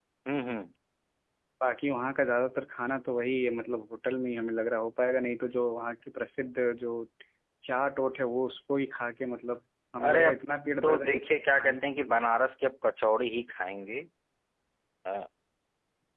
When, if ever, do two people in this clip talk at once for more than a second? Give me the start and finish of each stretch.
none

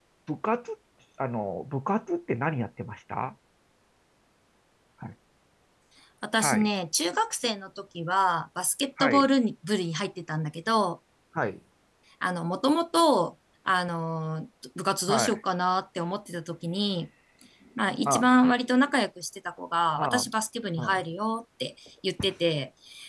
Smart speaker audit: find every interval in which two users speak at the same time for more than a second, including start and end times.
none

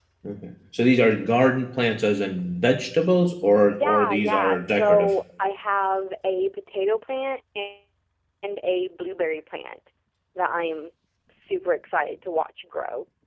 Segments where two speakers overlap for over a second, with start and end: 3.6-5.1

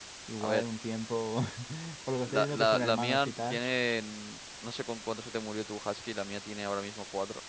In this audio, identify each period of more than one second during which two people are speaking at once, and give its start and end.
2.2-3.6

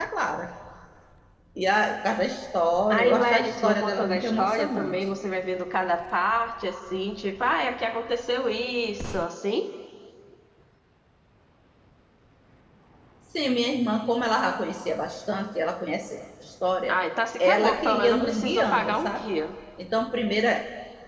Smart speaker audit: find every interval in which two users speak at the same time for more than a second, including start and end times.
2.9-5.0, 17.4-19.3

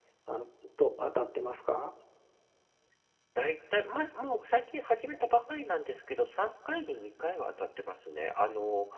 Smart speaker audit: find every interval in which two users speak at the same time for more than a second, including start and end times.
none

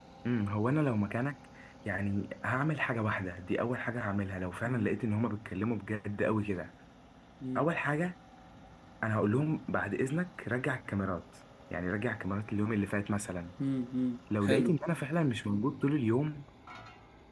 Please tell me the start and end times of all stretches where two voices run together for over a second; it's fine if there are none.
none

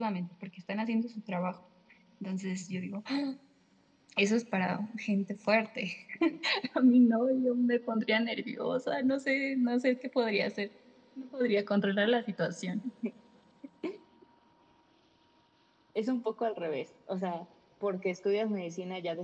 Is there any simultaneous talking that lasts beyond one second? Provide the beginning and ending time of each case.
none

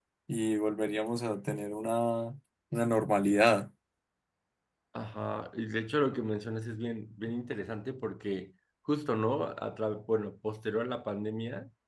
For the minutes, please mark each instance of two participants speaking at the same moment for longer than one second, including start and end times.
none

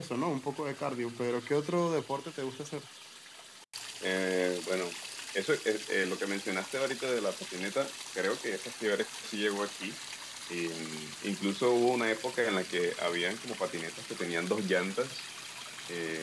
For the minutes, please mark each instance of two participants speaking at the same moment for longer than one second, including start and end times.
none

